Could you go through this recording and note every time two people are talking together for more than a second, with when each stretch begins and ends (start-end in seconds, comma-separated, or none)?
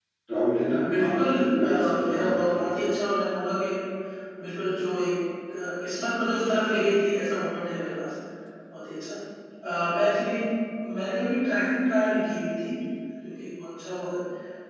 0.9-2.7